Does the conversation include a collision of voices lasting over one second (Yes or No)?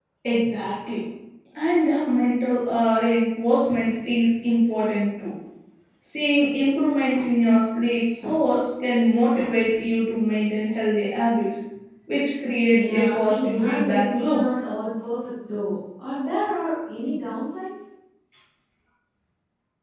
Yes